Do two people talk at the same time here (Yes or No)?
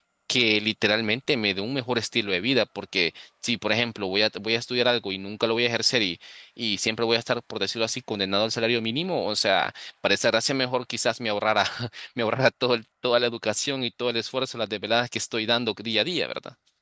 No